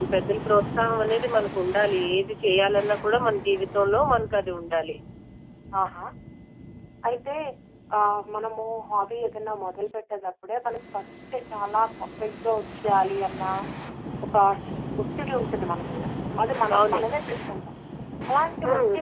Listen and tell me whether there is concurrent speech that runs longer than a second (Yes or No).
No